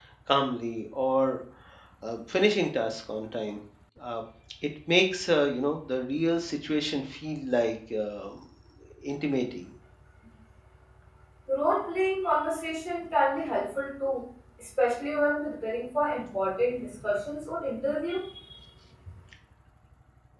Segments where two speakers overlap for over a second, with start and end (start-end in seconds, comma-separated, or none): none